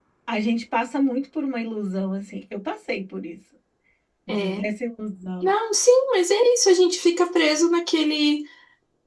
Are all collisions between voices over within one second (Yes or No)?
Yes